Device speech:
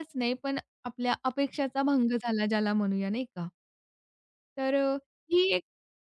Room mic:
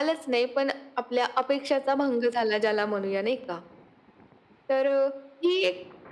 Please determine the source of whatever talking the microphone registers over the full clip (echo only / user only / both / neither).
echo only